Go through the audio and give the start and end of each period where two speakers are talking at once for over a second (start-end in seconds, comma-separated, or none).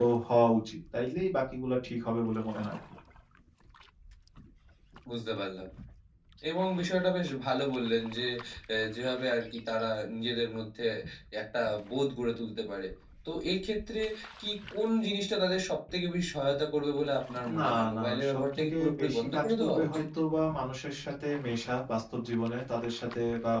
17.6-20.0